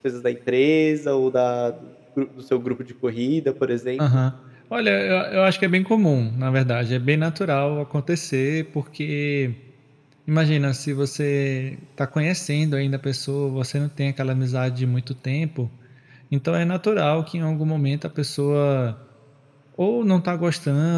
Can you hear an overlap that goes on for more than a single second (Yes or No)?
No